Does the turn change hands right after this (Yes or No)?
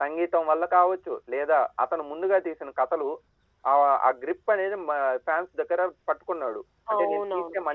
Yes